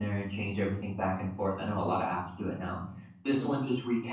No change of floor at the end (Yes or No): Yes